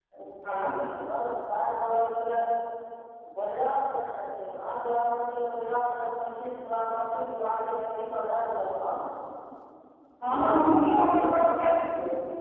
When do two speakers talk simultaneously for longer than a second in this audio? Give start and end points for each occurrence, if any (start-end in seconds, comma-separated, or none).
10.3-11.7